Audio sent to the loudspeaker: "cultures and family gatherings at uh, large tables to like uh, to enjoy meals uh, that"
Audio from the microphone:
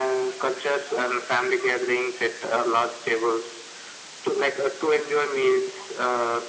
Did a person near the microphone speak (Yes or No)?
No